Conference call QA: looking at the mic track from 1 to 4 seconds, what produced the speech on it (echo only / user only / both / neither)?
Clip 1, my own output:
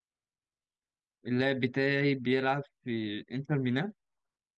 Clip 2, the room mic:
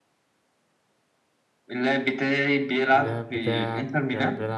both